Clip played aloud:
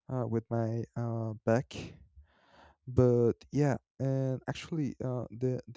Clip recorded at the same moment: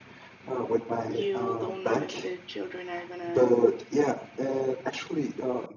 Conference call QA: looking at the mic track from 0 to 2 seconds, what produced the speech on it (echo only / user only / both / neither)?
both